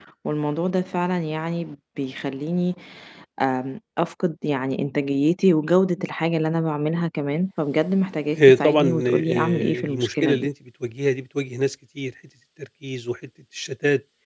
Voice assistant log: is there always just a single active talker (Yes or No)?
No